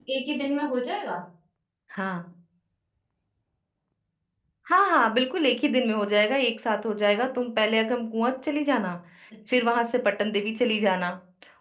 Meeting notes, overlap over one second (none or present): none